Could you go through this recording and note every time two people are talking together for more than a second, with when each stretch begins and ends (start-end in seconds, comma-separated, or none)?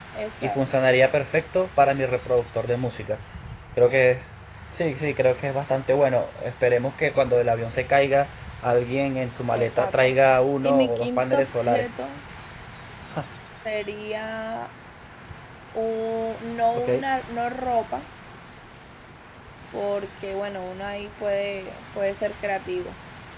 10.6-11.8